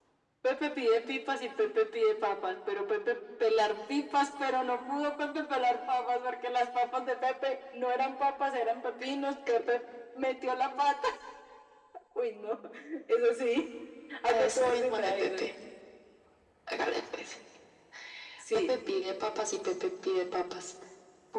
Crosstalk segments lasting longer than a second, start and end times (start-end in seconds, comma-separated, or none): 14.3-15.5